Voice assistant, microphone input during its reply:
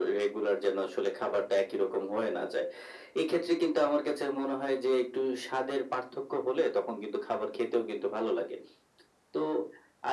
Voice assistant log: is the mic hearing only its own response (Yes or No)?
Yes